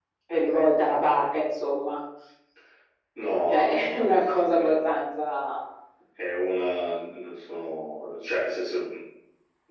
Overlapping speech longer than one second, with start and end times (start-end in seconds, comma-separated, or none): 3.5-4.8